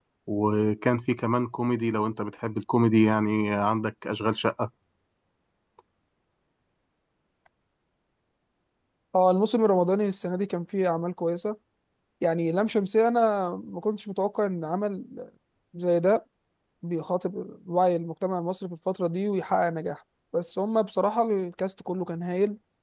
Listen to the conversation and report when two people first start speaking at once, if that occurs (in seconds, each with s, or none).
none